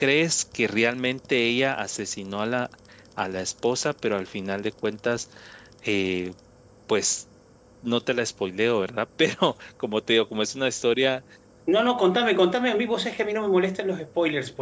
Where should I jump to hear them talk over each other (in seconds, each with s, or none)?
none